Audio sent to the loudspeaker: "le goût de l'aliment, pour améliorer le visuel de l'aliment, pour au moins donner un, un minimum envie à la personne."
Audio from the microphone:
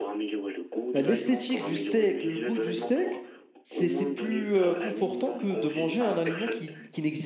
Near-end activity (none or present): present